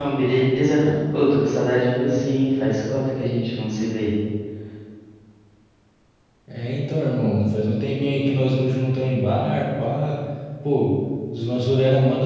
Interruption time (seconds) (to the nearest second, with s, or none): none